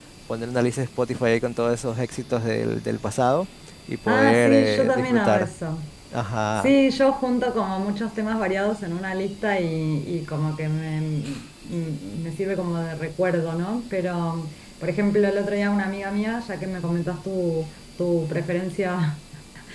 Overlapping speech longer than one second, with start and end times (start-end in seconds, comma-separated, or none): 4.1-5.5